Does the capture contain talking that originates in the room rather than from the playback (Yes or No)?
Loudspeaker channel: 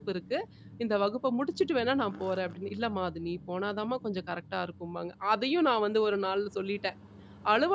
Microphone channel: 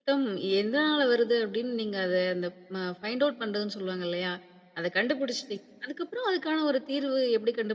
Yes